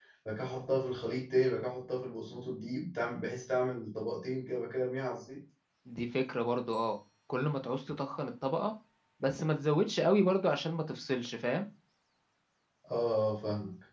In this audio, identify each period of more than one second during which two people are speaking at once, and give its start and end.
none

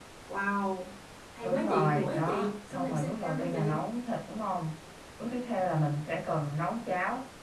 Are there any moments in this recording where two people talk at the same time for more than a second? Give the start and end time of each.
1.4-3.8

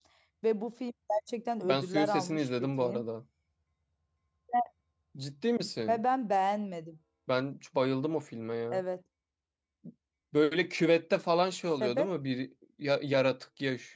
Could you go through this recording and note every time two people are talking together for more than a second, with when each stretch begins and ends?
1.6-3.0

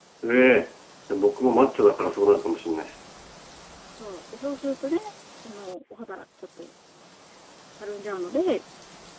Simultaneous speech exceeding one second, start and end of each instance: none

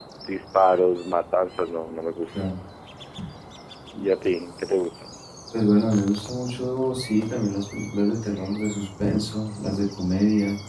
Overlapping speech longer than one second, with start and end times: none

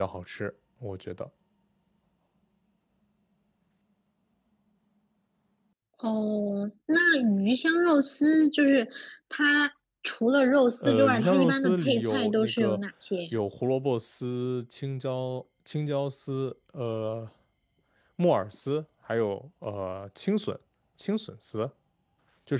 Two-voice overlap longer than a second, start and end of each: 10.8-12.8

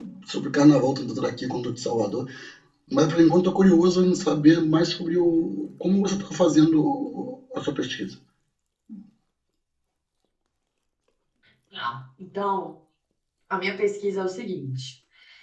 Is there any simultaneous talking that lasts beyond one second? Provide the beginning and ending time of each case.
none

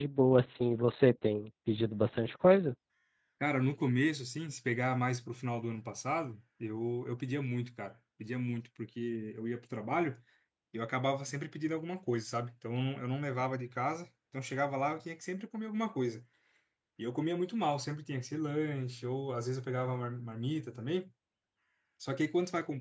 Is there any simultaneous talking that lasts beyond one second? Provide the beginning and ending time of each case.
none

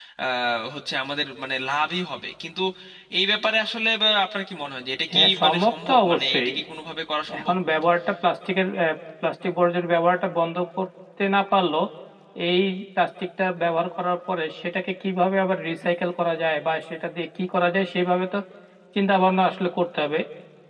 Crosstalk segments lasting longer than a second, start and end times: 5.1-6.5

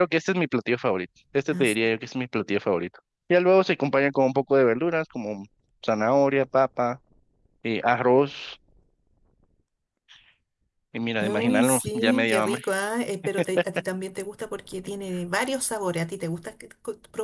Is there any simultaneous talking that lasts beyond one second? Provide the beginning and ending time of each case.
11.2-12.6

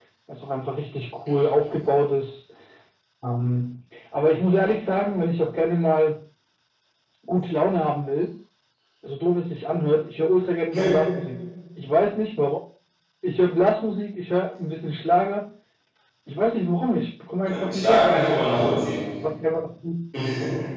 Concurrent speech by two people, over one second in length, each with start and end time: 17.5-18.7

